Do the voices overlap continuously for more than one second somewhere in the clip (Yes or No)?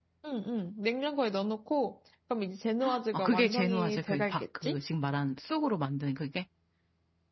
Yes